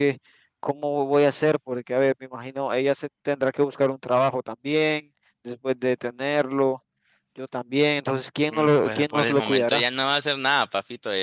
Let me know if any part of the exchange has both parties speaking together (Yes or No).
Yes